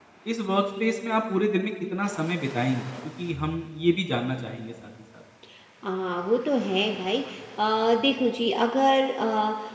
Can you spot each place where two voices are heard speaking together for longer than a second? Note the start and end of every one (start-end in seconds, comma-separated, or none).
none